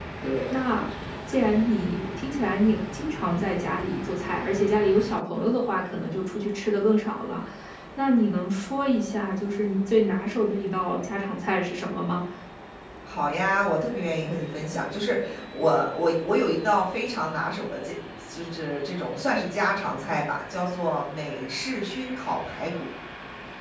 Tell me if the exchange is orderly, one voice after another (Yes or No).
Yes